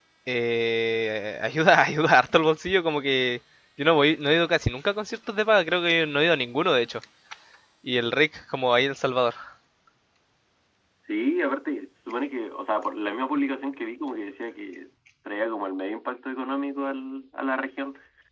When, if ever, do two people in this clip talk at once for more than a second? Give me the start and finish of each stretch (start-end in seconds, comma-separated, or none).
none